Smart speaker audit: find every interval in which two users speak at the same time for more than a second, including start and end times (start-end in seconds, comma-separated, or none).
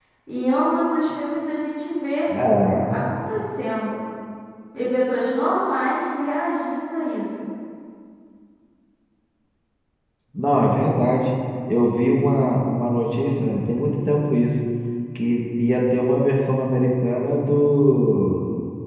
none